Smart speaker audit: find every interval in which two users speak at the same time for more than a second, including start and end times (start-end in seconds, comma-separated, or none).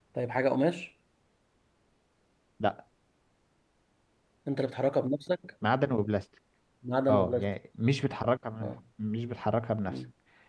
none